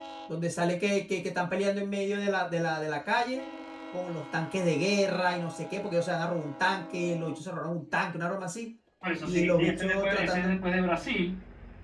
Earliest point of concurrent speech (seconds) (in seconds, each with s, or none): 9.2 s